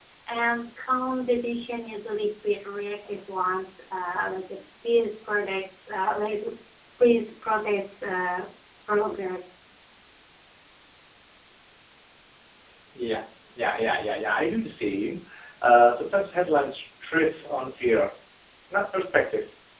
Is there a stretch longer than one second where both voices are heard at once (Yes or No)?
No